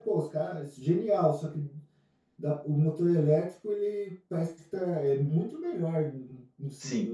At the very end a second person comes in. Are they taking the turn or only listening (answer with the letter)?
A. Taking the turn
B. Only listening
A